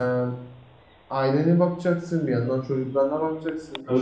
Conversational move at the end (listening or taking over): taking over